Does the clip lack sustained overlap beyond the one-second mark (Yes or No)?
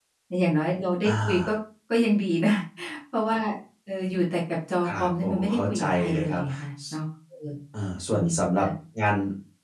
No